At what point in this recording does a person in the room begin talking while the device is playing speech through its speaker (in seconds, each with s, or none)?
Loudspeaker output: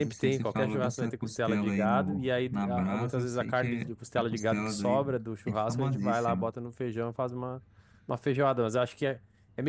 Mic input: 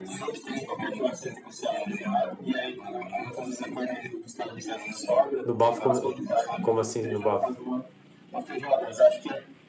5.4 s